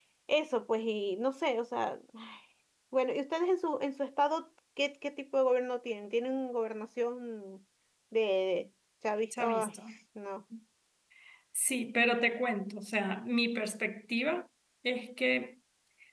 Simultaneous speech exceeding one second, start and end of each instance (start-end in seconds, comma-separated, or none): none